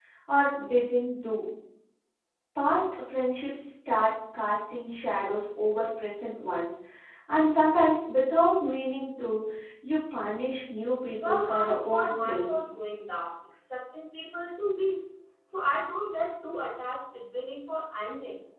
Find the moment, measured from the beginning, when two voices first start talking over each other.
11.2 s

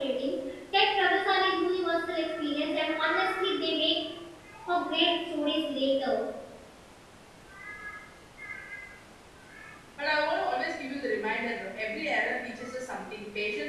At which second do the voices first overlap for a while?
none

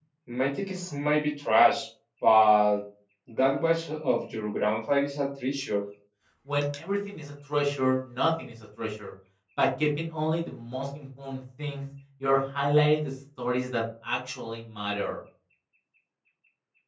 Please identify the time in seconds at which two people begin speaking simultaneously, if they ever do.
none

